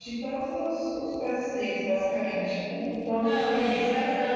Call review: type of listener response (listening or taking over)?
taking over